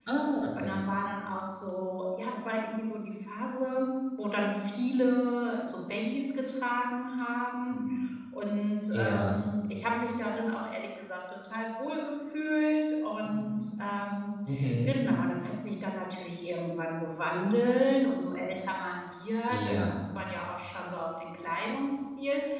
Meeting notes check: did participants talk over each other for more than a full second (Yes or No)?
No